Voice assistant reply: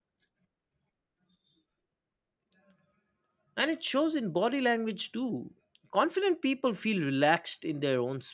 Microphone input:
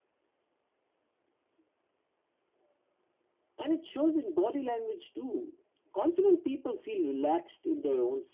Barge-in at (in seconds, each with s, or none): none